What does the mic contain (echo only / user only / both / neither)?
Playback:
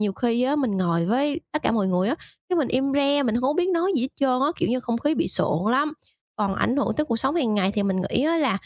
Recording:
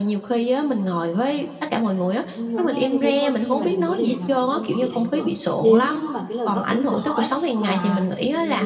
both